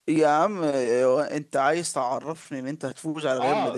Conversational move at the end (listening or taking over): taking over